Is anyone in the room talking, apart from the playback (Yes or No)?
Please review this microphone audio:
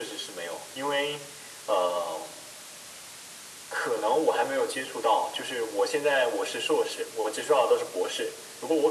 No